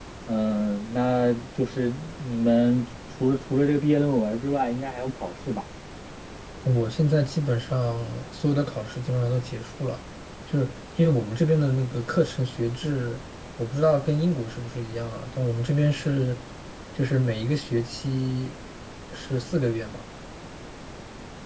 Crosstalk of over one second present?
No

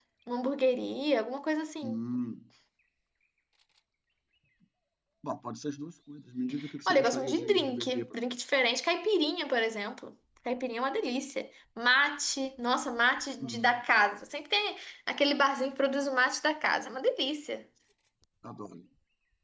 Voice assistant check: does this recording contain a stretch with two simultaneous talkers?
Yes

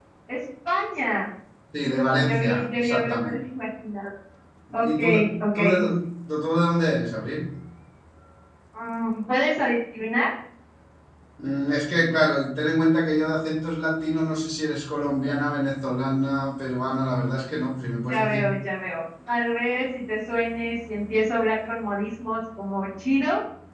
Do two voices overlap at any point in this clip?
Yes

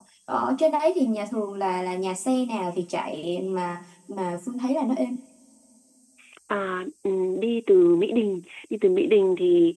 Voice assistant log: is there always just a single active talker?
Yes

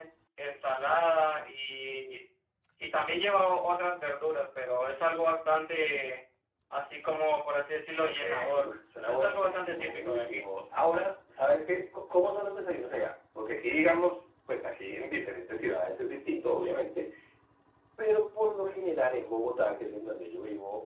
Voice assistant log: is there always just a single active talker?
No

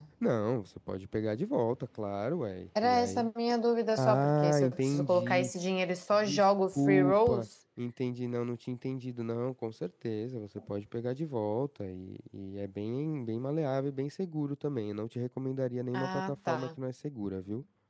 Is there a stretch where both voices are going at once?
Yes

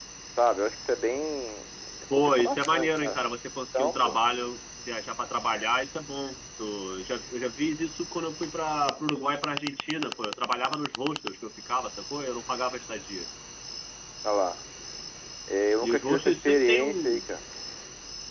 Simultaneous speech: Yes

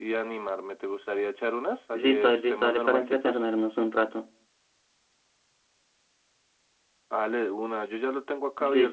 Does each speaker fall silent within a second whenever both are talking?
No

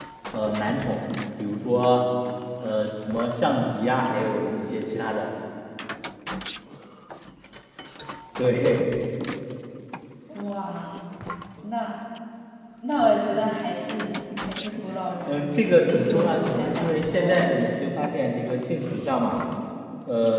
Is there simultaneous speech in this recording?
Yes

